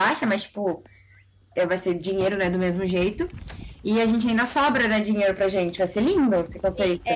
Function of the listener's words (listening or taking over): taking over